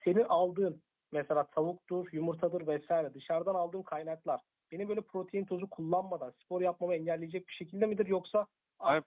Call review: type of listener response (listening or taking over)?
taking over